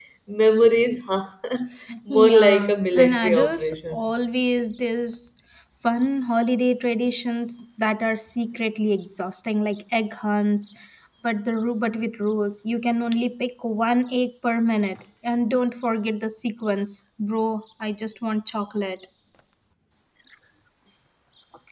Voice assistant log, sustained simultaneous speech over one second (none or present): present